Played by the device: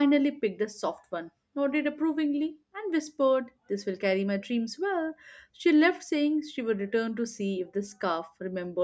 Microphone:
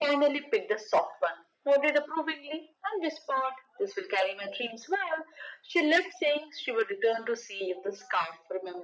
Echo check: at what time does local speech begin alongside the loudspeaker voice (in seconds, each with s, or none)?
none